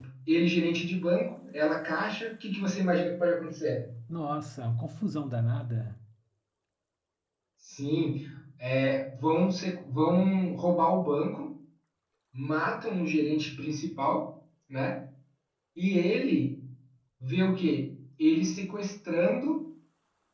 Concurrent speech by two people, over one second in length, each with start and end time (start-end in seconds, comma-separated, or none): none